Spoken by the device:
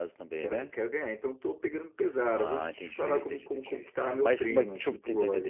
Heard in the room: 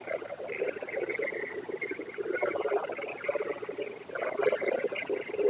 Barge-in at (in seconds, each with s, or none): none